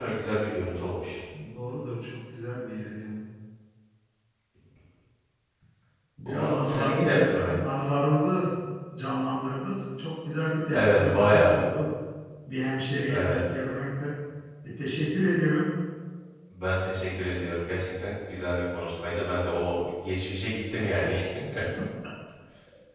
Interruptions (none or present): present